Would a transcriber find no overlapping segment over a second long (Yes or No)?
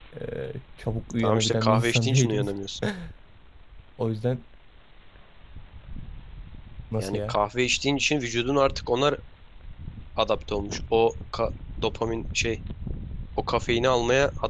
No